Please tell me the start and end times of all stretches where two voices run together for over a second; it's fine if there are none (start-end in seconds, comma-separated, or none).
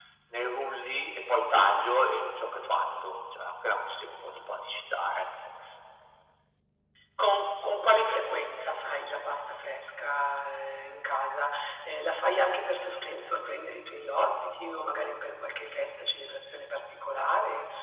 none